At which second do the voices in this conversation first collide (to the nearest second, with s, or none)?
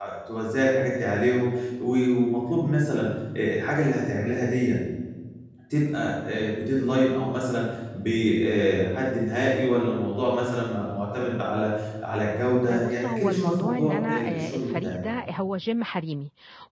13 s